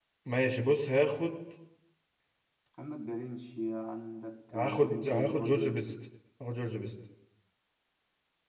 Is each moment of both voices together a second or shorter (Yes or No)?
No